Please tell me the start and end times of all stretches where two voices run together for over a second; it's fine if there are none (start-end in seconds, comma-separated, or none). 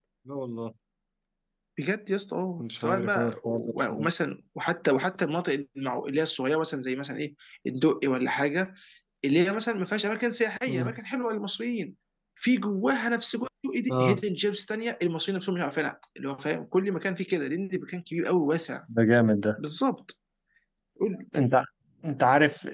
2.6-4.1